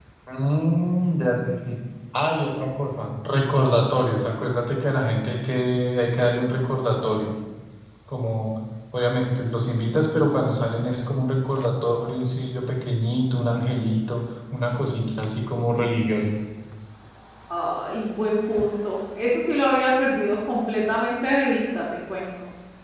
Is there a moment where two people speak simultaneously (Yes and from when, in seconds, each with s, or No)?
No